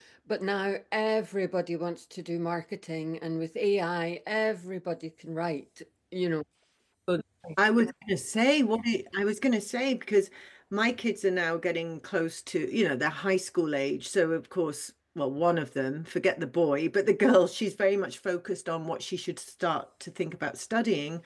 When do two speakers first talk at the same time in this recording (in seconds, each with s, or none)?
none